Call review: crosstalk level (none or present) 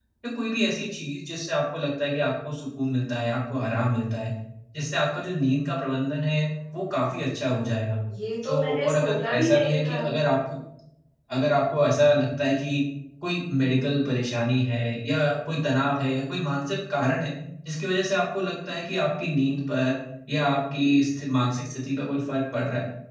present